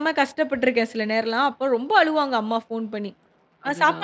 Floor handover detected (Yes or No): No